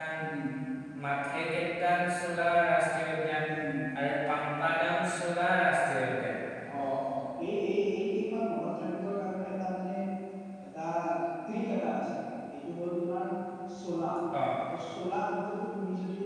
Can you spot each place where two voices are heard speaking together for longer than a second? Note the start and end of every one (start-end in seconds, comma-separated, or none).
none